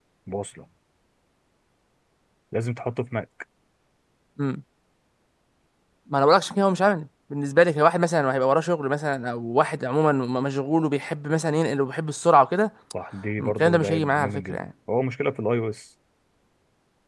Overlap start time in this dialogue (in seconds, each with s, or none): 13.4 s